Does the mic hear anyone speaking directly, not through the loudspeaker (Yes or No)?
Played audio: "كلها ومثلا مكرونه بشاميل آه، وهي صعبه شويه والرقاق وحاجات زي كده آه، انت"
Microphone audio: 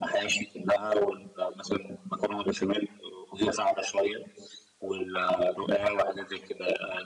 No